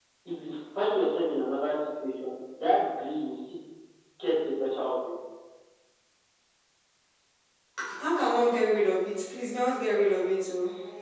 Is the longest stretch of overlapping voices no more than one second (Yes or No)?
Yes